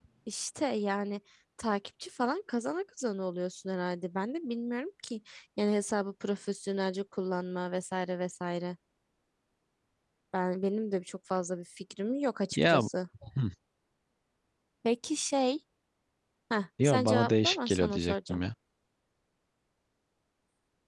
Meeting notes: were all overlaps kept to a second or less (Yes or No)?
No